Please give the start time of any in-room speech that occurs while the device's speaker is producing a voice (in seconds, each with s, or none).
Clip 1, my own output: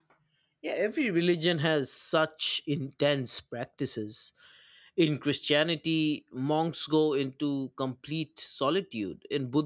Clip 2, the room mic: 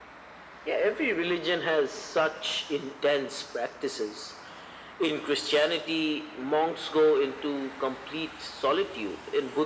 none